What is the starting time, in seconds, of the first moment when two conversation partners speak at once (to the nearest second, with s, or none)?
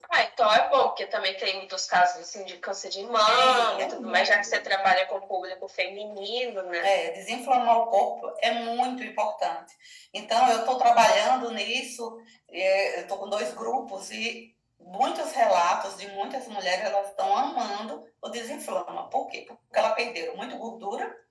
3 s